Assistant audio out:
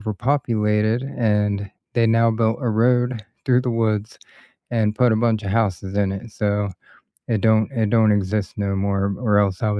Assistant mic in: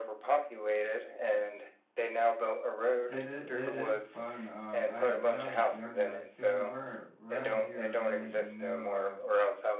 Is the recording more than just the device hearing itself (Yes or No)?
Yes